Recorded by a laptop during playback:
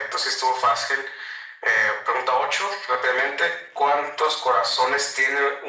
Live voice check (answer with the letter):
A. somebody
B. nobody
B